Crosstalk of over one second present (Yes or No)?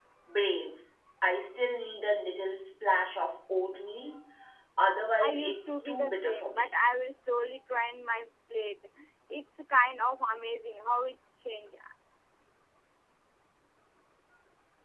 Yes